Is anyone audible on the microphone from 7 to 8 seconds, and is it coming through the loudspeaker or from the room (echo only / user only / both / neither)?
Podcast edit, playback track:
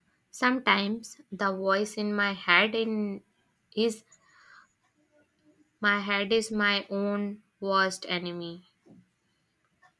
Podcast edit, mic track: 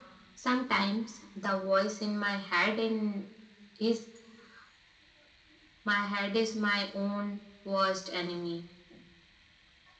echo only